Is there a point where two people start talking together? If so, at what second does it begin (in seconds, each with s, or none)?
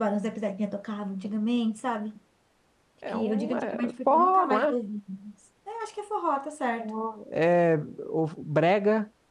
3.1 s